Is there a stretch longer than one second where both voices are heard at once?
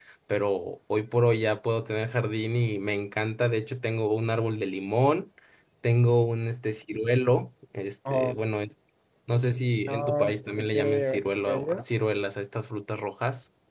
Yes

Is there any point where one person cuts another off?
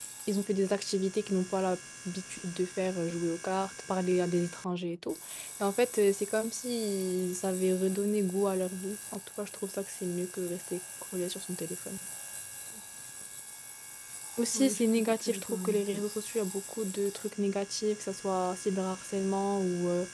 Yes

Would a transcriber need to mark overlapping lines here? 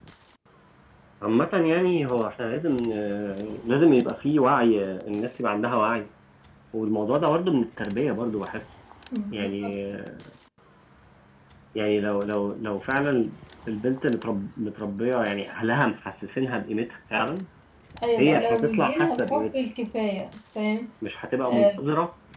Yes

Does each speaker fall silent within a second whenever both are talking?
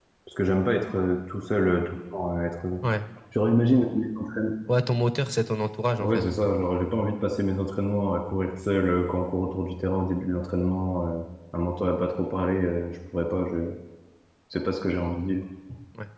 Yes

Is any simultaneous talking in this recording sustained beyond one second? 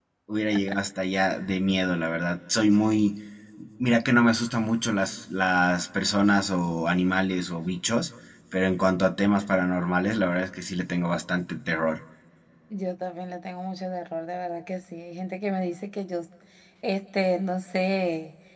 No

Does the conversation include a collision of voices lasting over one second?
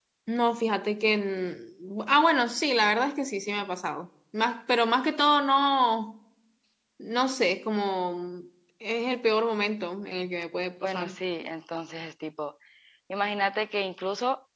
No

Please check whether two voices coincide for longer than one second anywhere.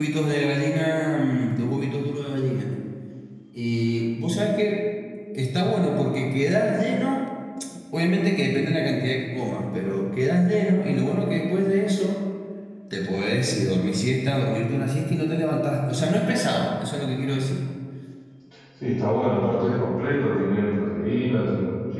No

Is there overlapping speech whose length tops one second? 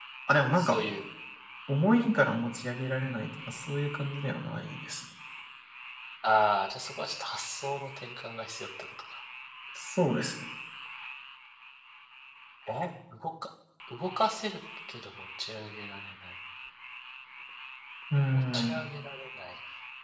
No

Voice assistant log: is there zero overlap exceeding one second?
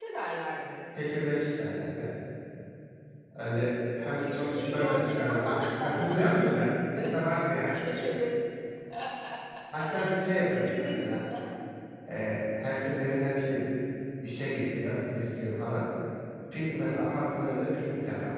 No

